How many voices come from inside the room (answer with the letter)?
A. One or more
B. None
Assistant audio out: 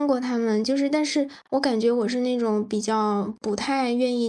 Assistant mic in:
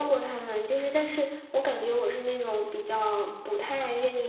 B